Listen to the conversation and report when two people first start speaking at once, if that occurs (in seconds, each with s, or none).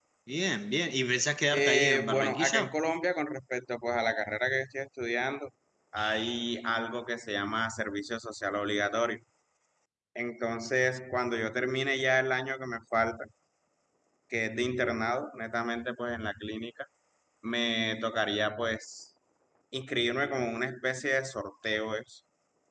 1.5 s